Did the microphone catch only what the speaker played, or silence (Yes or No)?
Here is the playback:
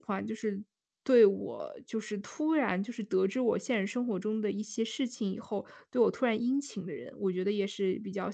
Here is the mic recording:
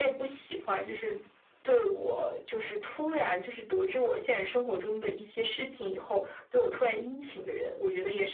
Yes